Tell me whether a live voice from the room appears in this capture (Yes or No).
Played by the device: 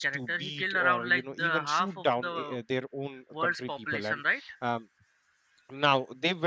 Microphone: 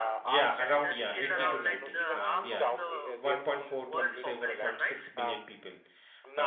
Yes